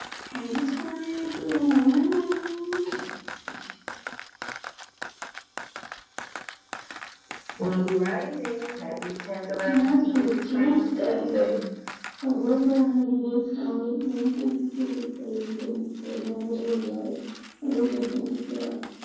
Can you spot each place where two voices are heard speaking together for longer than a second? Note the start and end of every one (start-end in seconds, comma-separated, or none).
9.6-11.4